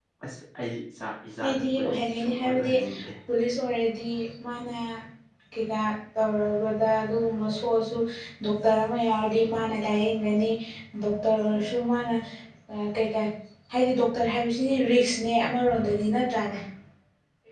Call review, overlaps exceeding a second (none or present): present